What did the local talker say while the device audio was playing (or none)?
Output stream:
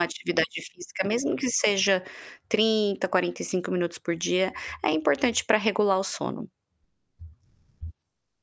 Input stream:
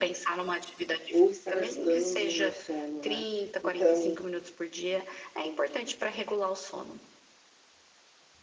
ou estar ajudando no meu sono, né. Então,